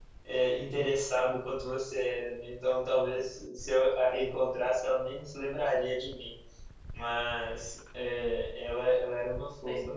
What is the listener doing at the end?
listening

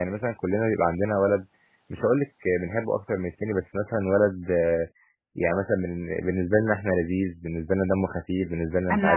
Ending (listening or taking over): taking over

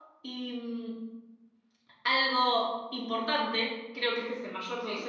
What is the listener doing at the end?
listening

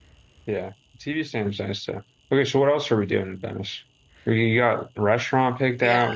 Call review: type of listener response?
taking over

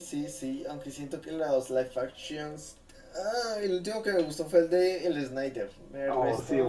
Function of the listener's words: taking over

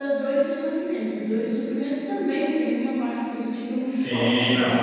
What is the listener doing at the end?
taking over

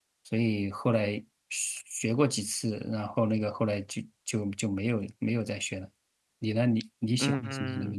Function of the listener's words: taking over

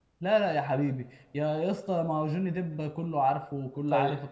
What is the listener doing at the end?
taking over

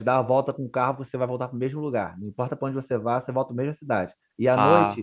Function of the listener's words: listening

